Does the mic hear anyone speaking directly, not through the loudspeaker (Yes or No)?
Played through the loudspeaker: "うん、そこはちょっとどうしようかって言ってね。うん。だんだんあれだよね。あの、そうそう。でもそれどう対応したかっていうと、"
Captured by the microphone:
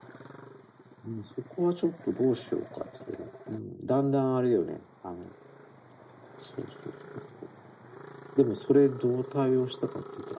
No